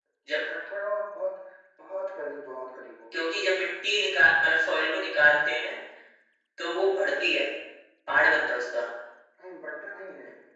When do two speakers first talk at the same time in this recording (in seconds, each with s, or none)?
none